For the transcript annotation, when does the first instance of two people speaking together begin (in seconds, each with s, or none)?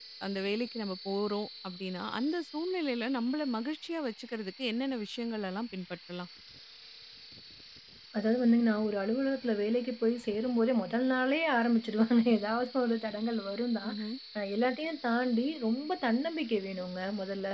none